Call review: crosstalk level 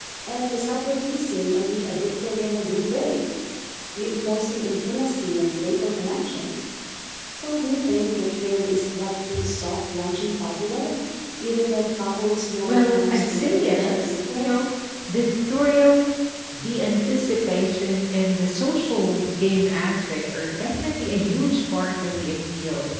present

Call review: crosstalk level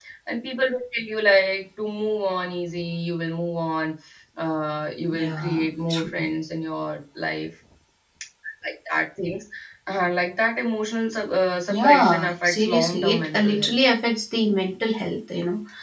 present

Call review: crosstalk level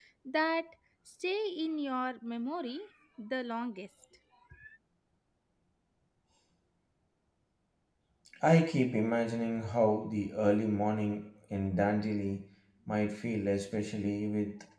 none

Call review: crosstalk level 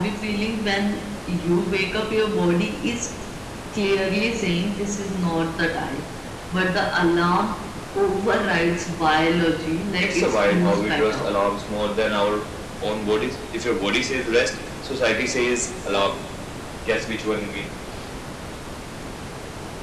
present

